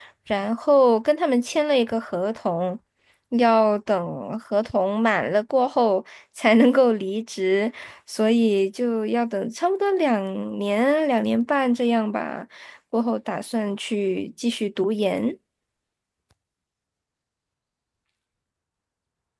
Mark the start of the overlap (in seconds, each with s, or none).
none